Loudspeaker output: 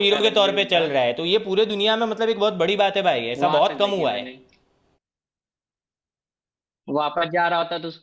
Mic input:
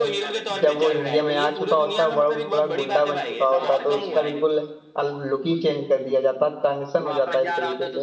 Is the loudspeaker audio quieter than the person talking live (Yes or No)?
Yes